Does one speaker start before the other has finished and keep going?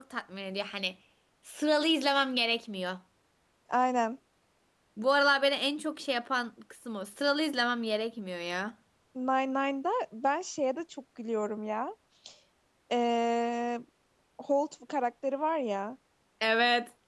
No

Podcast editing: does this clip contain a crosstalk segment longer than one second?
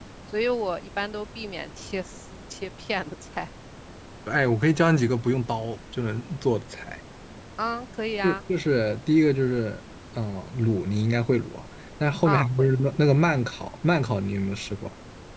No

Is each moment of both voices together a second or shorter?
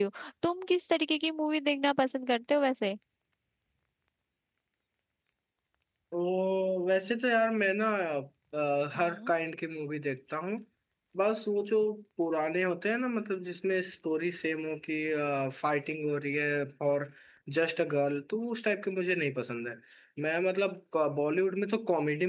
Yes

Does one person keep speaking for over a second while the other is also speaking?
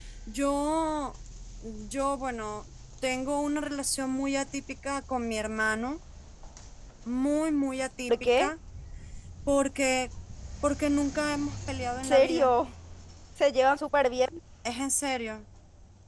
No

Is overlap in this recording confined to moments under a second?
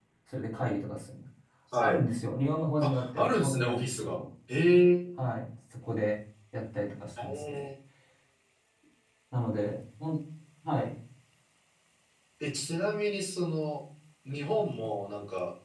No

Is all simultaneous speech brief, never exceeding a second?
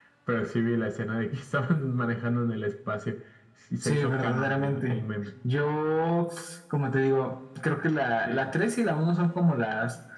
No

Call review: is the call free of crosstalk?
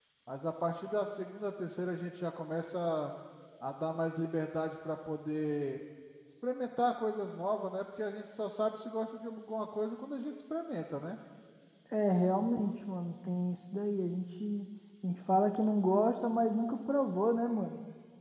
Yes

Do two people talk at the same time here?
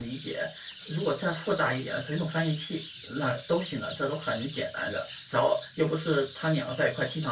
No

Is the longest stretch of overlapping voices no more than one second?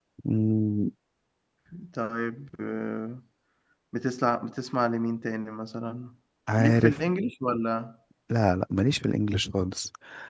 Yes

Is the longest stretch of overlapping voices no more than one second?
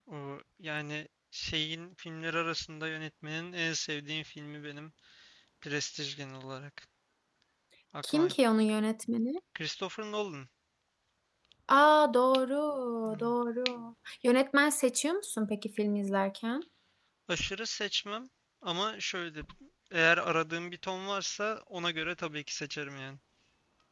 Yes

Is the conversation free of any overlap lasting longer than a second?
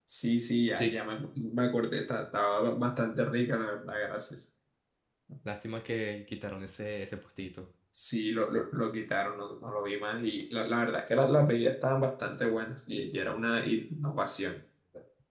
Yes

